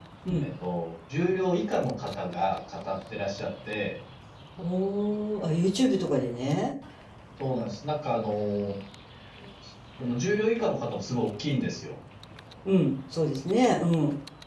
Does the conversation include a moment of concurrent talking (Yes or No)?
No